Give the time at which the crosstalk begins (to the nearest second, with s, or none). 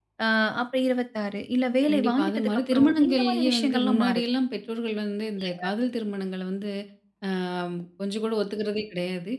2 s